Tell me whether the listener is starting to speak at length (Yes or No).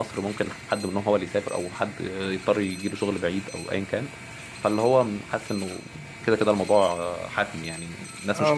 Yes